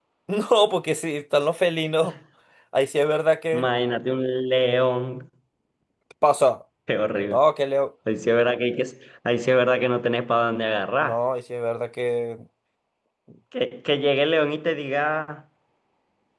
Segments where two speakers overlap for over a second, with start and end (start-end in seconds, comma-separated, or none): none